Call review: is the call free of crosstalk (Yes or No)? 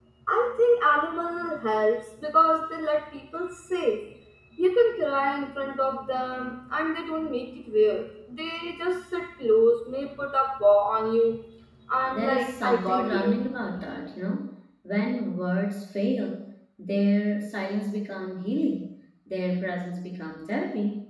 No